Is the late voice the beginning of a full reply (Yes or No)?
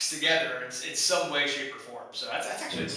No